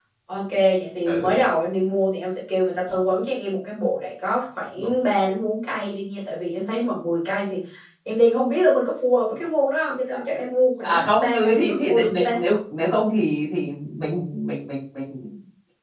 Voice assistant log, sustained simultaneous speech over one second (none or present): present